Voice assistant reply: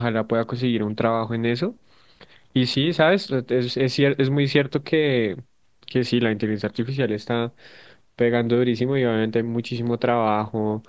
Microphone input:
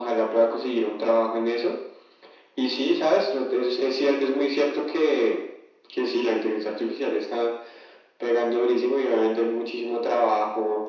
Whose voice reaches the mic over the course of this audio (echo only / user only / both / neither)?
echo only